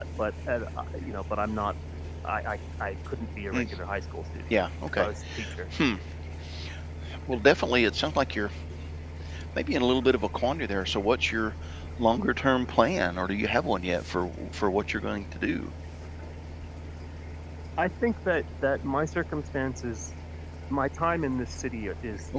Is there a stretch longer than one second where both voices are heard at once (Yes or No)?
No